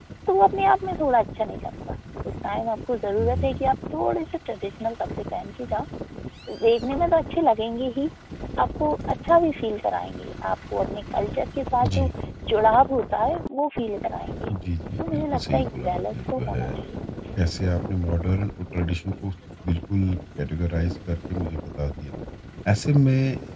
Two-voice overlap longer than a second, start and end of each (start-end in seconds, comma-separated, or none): 15.0-16.7